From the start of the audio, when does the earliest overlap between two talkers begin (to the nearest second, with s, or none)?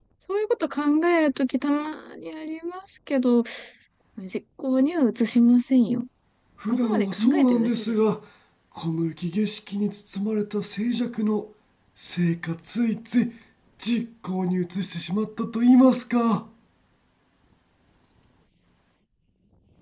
7 s